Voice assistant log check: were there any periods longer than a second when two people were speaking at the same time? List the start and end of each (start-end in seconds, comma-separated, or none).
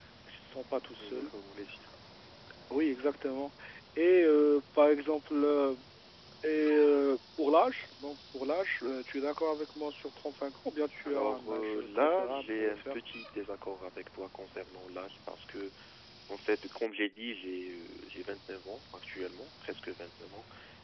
11.1-13.0